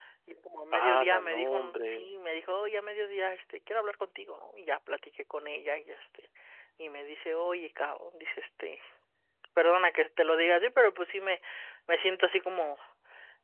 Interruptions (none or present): present